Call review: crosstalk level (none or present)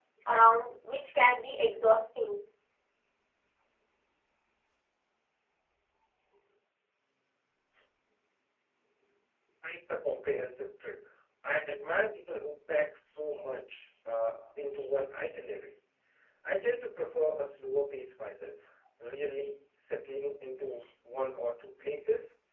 none